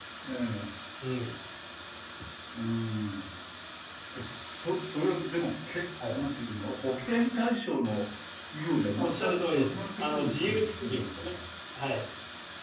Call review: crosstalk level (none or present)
present